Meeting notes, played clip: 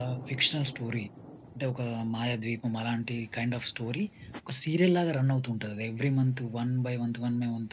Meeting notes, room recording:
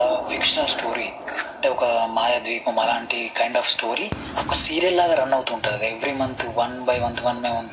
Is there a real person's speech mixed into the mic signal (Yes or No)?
No